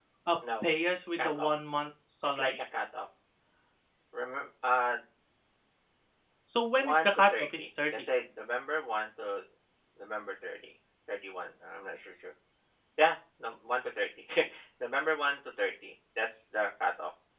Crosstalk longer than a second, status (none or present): present